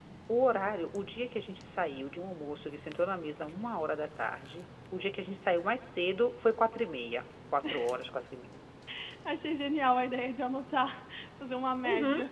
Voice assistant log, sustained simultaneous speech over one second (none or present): none